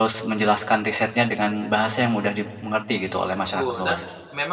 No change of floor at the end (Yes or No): No